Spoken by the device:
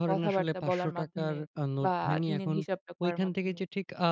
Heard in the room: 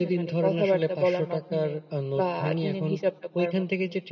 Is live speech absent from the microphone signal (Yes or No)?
Yes